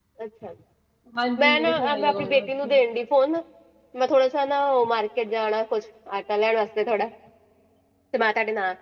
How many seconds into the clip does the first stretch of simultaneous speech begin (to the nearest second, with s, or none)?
1 s